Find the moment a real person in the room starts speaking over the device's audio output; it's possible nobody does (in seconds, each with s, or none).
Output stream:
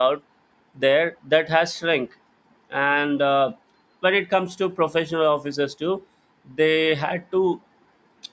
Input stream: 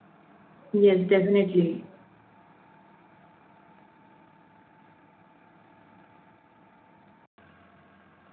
0.7 s